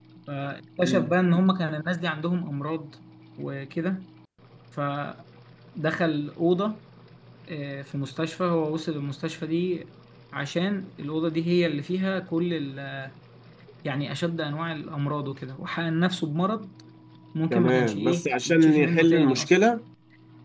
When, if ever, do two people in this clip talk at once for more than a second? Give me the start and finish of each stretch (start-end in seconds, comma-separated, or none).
17.5-19.6